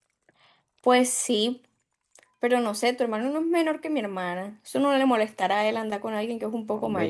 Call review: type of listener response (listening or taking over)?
taking over